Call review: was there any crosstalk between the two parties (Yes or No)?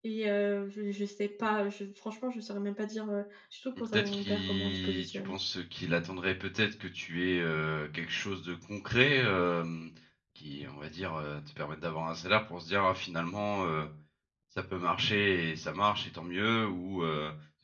Yes